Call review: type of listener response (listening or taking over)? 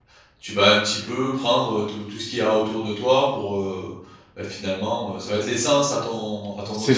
taking over